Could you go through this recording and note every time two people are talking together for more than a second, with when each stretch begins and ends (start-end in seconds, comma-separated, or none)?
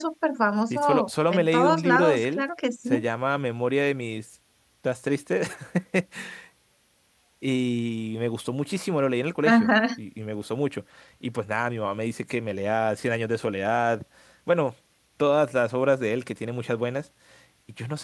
0.7-2.4